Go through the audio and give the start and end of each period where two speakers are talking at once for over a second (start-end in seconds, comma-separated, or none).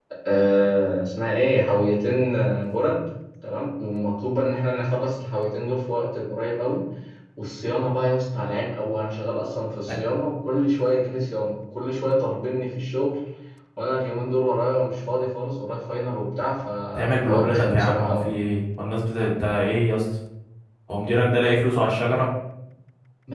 16.9-18.3